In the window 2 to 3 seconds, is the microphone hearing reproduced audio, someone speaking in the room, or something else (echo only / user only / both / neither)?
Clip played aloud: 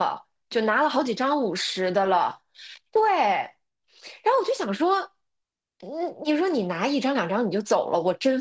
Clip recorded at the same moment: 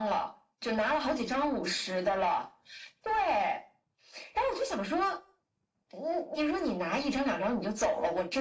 echo only